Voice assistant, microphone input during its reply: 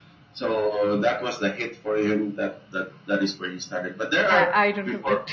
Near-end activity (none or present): present